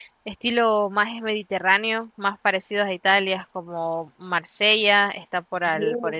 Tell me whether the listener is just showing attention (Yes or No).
Yes